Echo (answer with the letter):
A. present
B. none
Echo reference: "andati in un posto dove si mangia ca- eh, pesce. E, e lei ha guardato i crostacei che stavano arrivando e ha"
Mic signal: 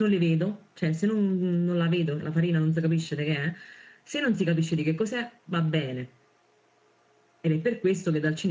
B